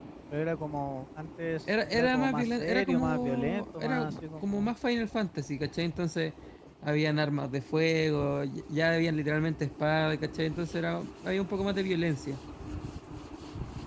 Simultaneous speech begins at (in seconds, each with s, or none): 1.9 s